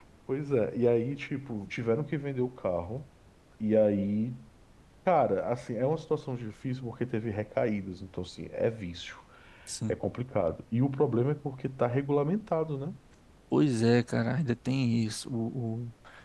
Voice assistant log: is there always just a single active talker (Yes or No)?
Yes